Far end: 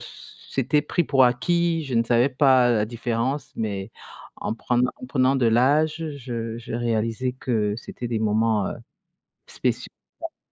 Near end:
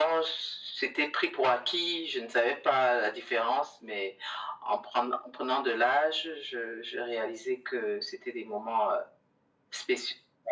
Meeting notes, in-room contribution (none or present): none